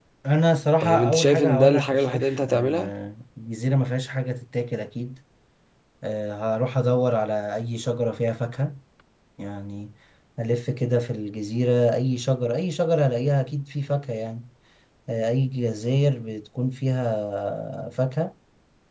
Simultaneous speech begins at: 1 s

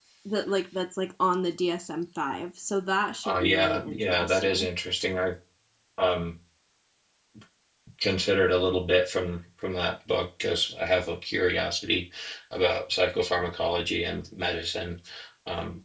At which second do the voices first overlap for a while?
3 s

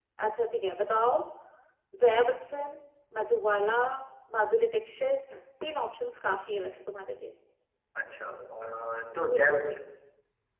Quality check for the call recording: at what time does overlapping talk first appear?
none

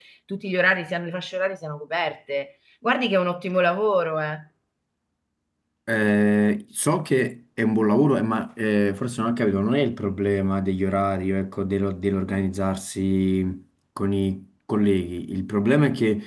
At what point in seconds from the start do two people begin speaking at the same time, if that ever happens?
none

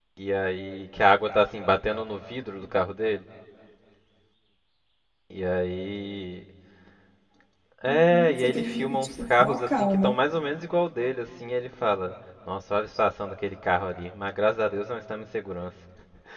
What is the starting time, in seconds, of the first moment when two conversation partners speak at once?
8 s

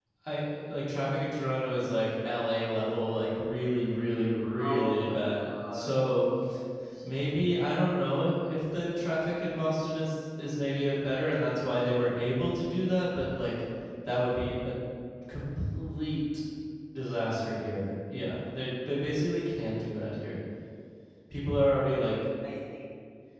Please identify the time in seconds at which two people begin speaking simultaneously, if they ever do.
5 s

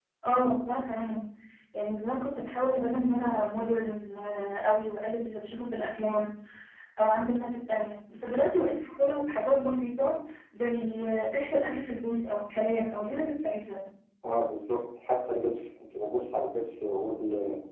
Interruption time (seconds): none

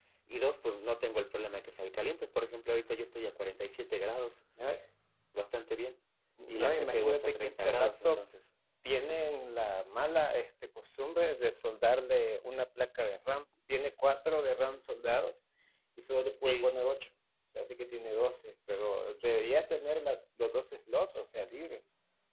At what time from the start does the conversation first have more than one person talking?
6 s

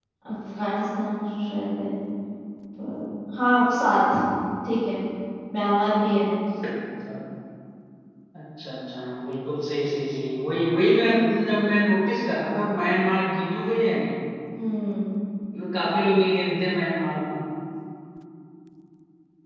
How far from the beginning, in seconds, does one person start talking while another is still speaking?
none

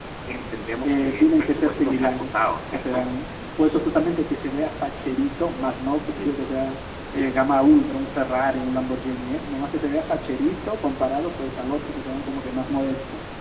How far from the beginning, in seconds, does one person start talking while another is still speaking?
1 s

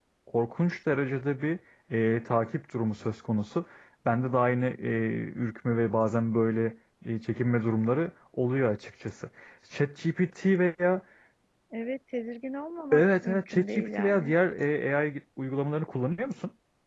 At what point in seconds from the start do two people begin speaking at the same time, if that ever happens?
13 s

